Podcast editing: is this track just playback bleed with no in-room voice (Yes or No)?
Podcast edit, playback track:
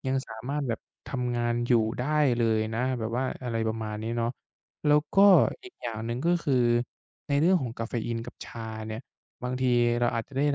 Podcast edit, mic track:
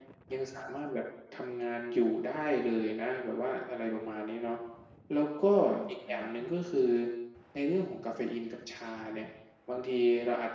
No